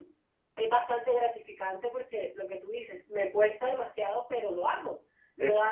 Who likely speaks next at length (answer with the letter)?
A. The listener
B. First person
B